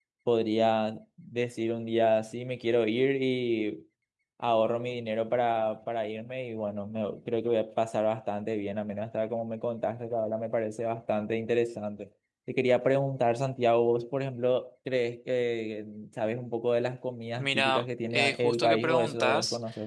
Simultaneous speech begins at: 17.4 s

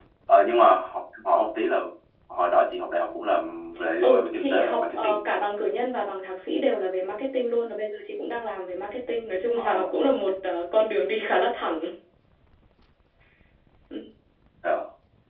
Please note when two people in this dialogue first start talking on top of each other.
4.0 s

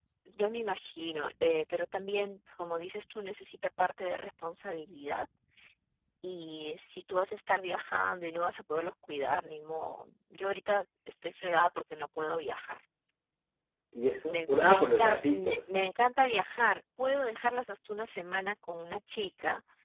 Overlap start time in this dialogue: 14.3 s

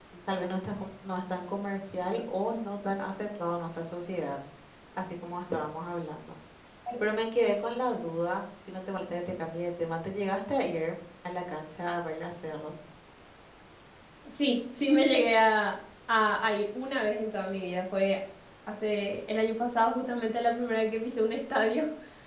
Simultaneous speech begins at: none

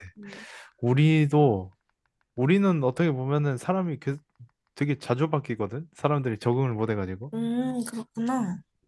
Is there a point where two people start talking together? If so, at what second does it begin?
none

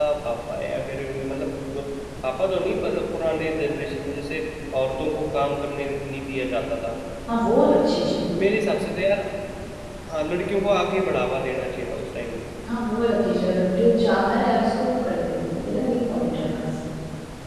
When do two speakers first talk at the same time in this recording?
none

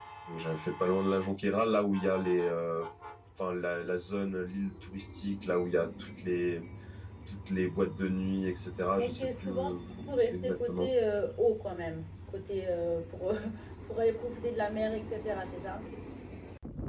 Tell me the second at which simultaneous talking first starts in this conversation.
9.0 s

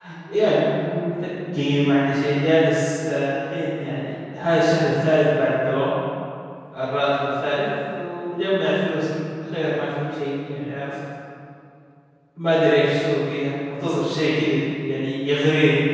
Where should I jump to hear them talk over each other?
none

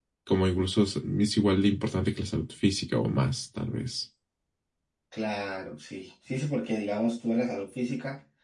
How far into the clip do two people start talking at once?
none

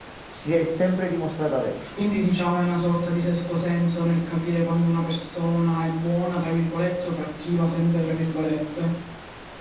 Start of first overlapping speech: none

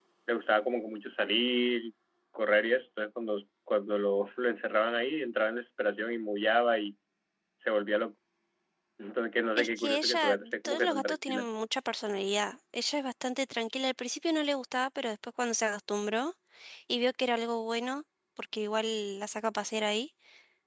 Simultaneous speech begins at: 9.6 s

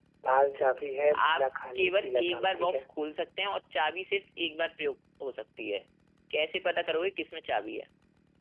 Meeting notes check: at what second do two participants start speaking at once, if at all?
1.3 s

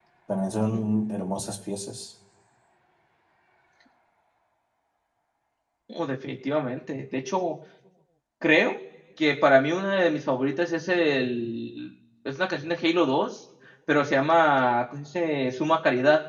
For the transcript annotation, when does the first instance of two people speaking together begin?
none

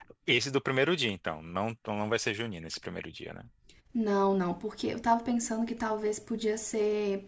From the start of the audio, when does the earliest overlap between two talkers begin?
none

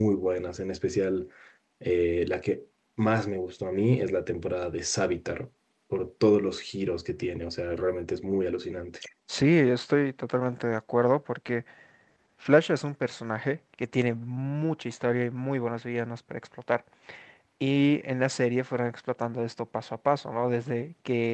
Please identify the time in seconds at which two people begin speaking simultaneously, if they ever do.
none

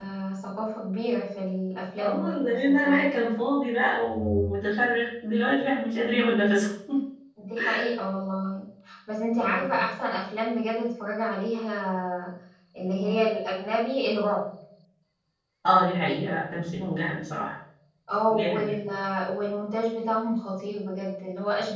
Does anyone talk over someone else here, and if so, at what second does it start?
2.0 s

